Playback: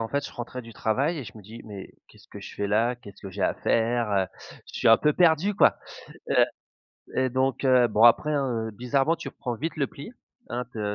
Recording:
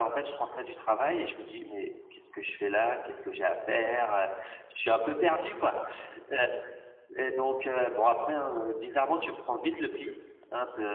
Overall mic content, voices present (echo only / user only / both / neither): echo only